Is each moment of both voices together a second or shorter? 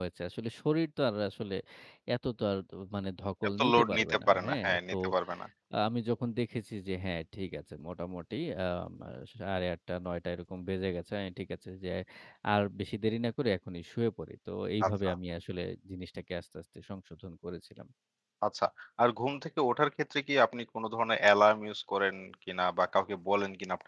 No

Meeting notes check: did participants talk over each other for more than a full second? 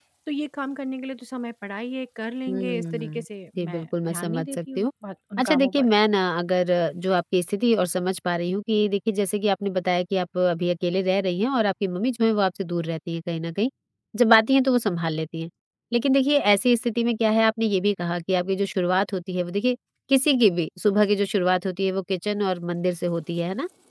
Yes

